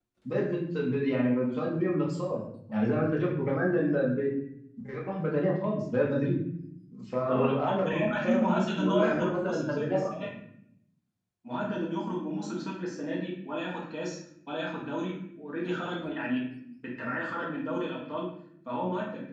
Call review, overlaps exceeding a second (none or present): present